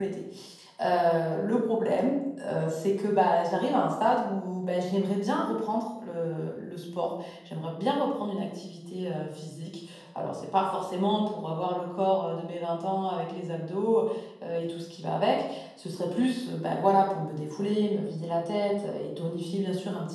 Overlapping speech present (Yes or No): No